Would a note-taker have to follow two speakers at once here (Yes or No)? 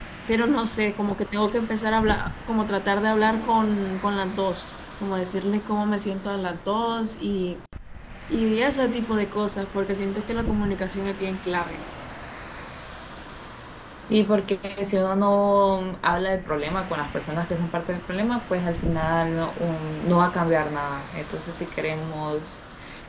No